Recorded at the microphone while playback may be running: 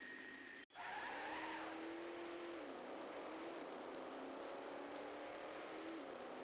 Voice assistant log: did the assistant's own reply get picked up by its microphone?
No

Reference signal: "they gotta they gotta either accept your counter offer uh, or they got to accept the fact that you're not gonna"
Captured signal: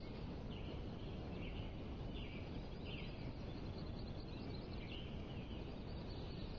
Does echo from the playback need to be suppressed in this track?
No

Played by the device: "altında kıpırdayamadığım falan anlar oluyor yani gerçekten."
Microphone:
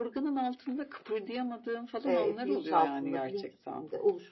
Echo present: Yes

